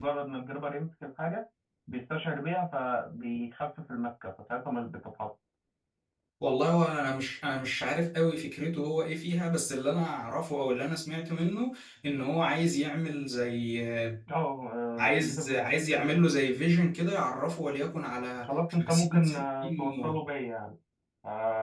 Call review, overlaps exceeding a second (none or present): present